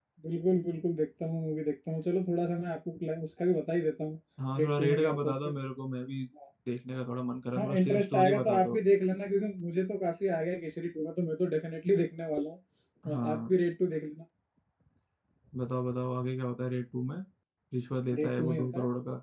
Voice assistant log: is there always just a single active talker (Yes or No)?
No